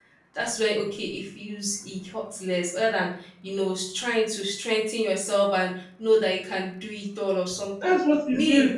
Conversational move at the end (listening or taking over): taking over